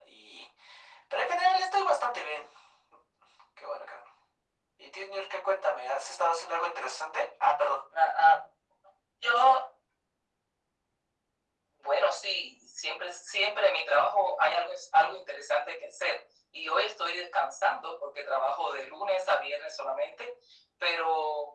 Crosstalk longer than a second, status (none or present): none